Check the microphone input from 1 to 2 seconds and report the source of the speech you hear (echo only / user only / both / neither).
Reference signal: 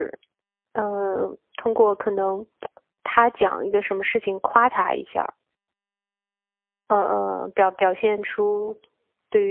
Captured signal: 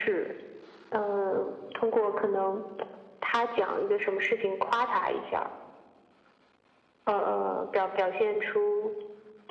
echo only